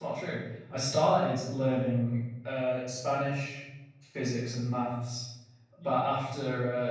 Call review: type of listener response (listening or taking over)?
listening